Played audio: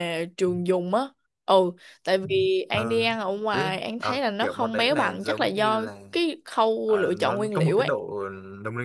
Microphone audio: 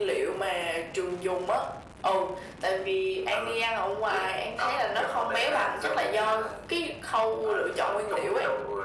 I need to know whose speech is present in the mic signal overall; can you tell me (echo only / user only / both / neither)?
echo only